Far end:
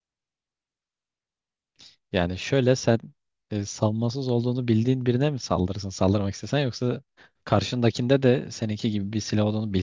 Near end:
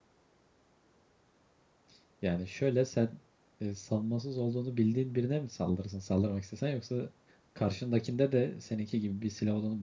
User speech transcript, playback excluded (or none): none